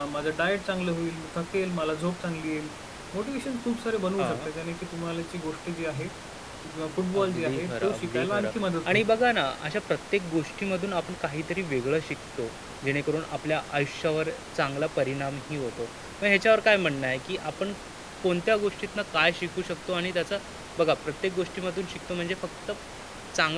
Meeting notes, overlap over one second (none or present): present